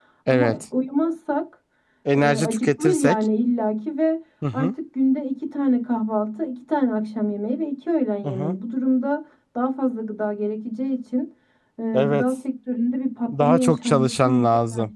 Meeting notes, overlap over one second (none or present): present